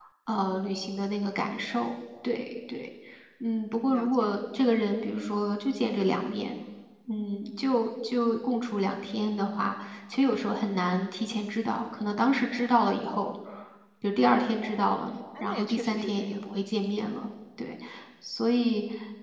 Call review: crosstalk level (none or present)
present